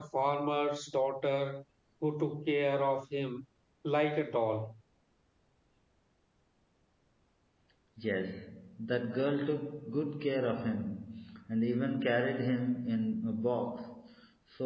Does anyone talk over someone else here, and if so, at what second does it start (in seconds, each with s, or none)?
none